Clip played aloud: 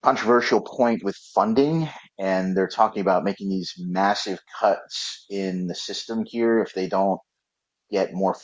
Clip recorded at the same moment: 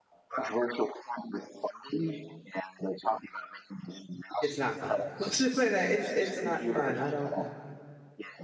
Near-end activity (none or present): present